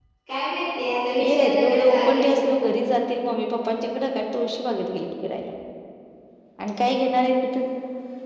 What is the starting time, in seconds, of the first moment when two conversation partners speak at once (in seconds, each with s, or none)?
1.2 s